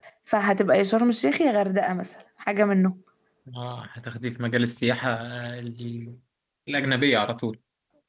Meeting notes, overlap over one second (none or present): none